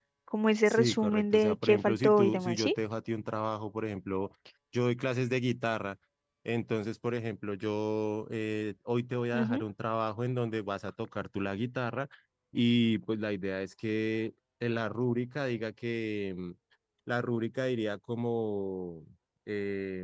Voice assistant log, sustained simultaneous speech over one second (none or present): present